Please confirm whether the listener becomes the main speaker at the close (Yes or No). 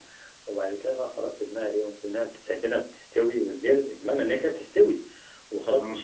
No